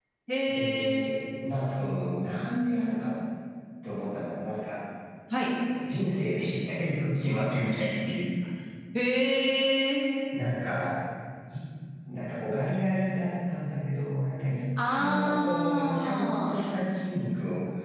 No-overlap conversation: No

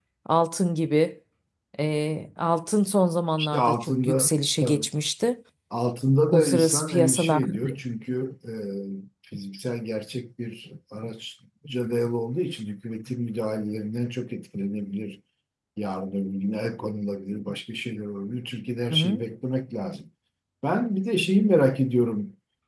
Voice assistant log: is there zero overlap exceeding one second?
No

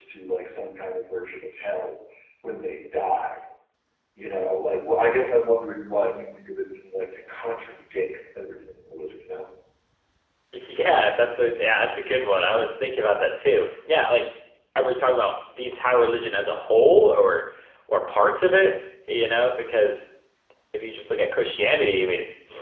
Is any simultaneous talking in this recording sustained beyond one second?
No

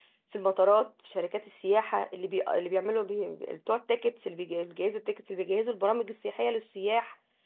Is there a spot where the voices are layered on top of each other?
No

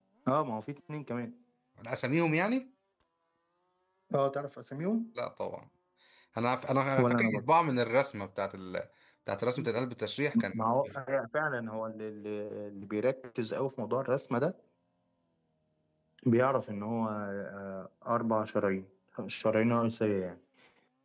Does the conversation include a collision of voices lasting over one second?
No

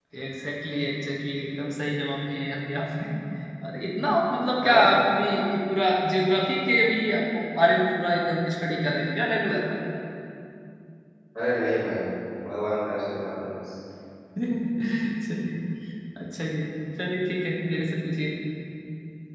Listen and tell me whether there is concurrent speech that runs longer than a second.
No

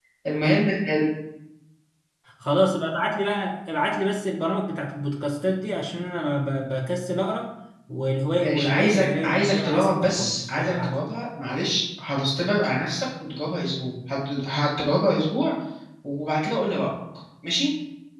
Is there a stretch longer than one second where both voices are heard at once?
Yes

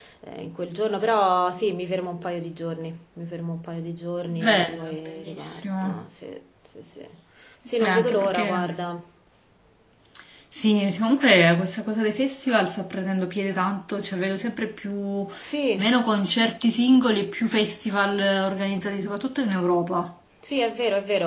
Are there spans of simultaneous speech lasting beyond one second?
Yes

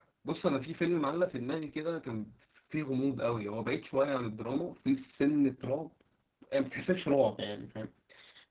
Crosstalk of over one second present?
No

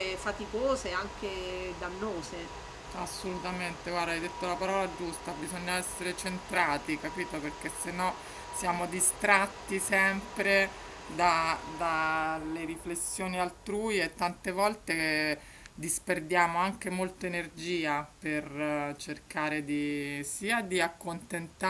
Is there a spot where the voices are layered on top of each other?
No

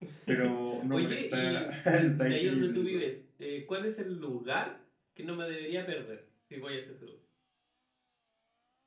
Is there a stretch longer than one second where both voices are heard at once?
Yes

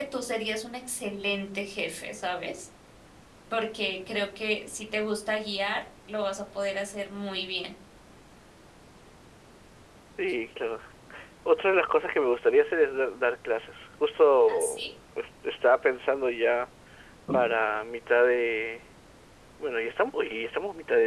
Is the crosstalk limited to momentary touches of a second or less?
Yes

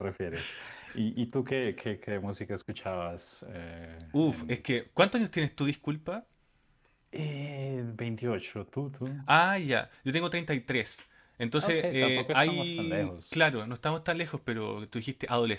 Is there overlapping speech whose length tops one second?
Yes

